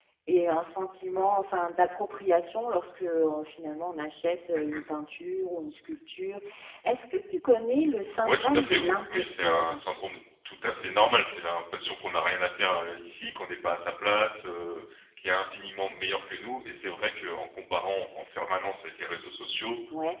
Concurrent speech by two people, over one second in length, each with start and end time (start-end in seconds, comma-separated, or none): 8.2-9.8